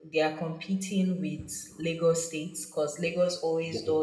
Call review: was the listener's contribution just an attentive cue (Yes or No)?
Yes